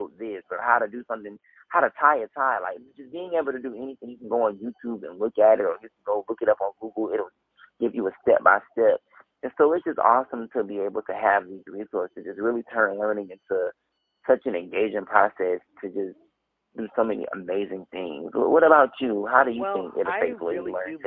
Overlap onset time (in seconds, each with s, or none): 19.6 s